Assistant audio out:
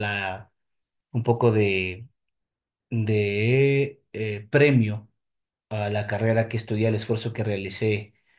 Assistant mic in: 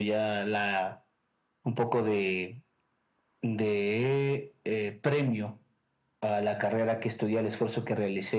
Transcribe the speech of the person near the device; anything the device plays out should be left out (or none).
none